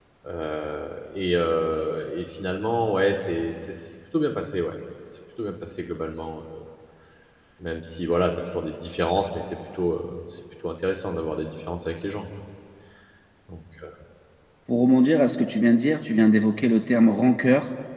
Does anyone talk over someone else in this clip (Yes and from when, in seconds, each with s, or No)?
No